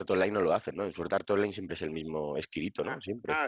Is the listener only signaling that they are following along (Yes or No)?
No